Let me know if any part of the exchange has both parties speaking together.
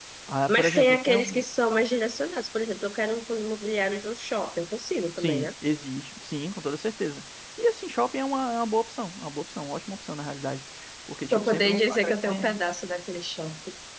Yes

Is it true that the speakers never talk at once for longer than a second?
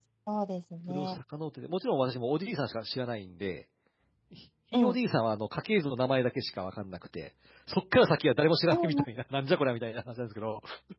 Yes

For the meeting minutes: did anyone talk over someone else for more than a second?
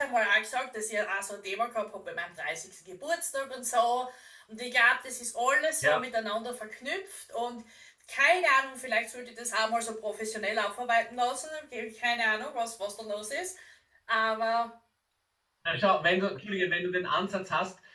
No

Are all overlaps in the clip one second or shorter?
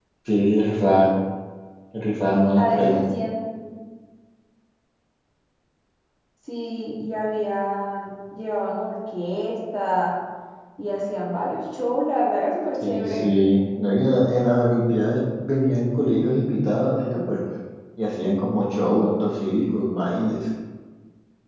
Yes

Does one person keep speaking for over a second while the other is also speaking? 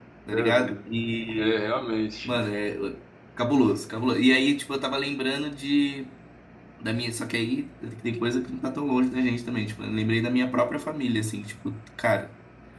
No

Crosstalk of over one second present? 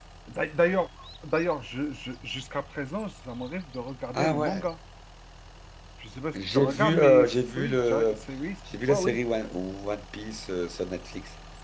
Yes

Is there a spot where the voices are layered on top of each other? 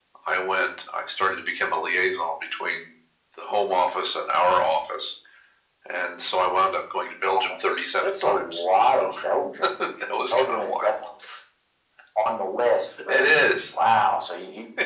Yes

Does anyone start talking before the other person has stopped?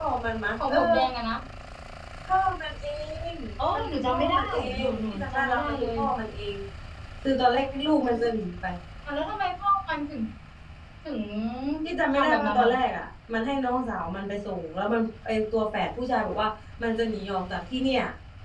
Yes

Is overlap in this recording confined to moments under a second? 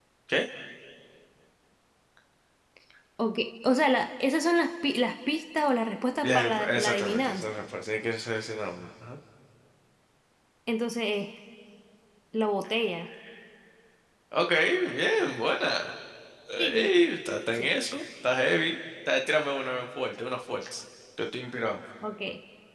No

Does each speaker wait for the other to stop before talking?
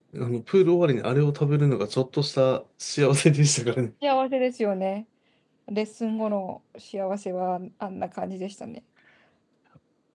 Yes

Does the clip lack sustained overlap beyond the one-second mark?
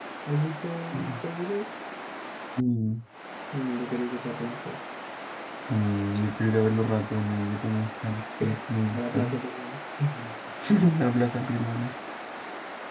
Yes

